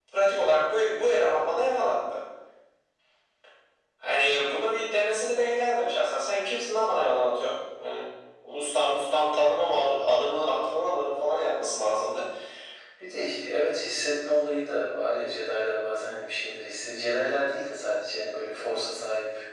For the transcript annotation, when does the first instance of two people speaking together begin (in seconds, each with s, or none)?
none